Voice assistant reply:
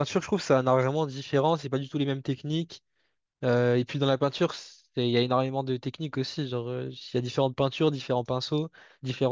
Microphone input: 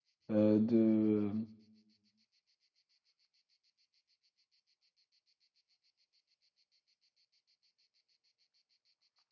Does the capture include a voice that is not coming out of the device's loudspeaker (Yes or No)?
Yes